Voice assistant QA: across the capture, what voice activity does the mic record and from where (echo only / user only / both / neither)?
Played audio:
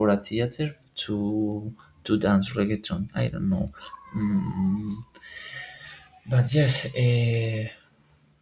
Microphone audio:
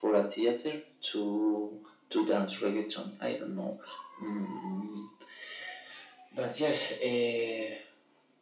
echo only